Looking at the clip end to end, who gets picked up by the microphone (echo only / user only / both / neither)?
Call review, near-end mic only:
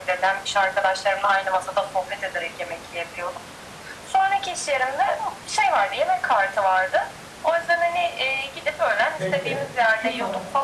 both